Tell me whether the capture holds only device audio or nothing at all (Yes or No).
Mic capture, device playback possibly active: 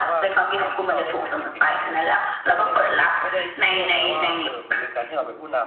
No